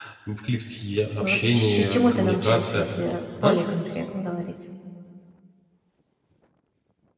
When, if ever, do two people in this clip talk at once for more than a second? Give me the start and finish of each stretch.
1.2-2.9

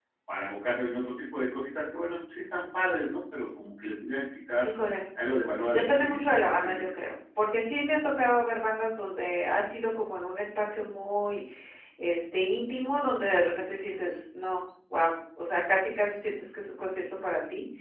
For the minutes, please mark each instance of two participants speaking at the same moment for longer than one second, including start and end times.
5.7-6.9

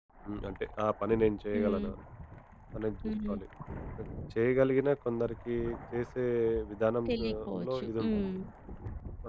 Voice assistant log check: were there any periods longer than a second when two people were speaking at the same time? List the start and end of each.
7.1-8.3

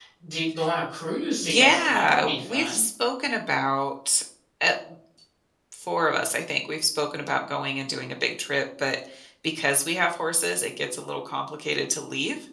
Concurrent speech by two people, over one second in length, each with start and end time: 1.4-2.8

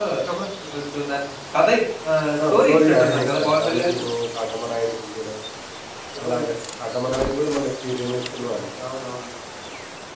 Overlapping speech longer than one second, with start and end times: 2.5-4.0

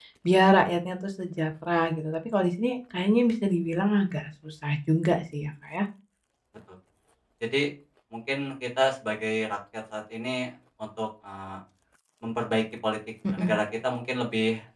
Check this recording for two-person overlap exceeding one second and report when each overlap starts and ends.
none

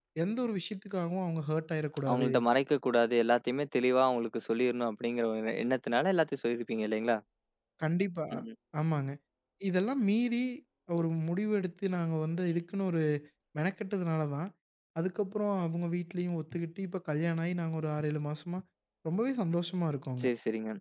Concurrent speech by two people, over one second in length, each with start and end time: none

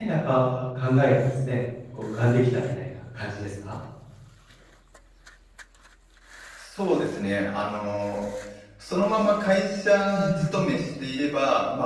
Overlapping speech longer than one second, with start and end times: none

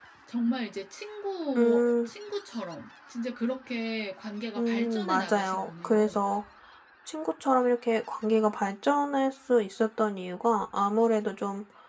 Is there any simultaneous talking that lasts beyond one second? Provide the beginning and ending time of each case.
4.6-6.2

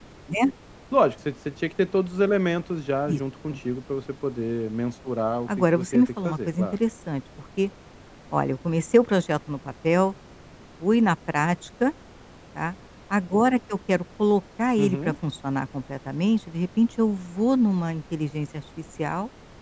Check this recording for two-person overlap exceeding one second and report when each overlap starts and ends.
5.5-6.8

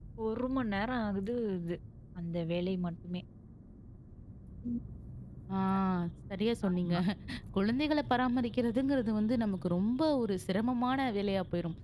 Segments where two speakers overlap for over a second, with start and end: none

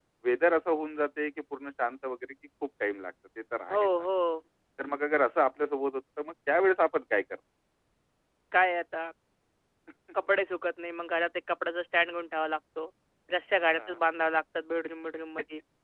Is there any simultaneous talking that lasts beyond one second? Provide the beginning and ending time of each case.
none

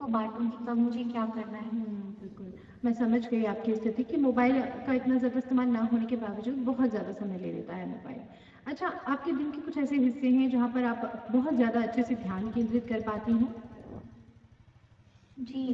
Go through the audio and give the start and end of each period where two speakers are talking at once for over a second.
none

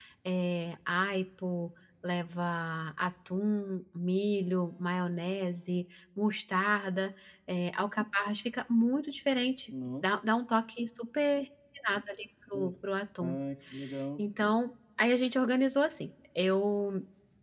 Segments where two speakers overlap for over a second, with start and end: none

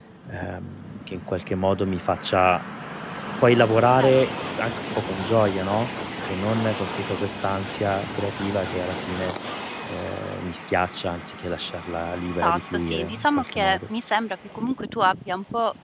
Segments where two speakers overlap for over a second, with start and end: 12.4-13.8

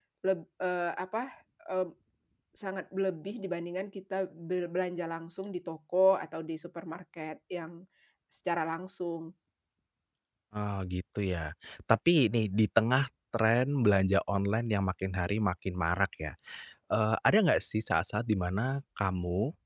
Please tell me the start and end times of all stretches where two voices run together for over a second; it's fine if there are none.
none

